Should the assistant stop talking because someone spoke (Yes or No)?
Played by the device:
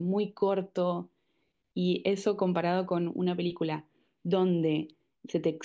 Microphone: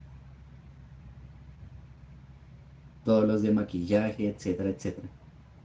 Yes